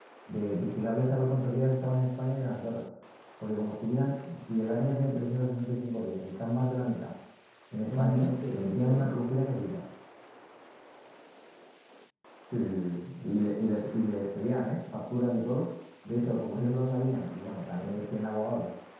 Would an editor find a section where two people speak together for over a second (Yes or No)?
Yes